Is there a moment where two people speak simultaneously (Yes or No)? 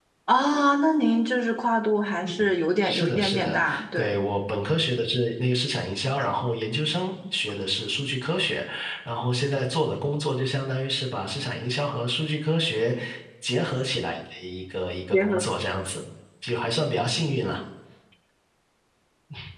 Yes